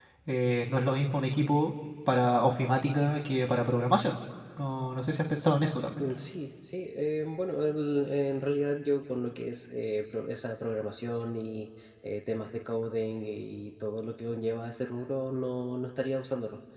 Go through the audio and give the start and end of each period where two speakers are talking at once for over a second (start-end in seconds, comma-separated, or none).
none